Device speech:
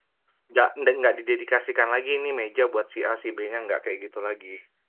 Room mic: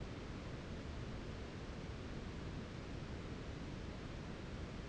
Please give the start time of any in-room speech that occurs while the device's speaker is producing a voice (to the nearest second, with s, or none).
none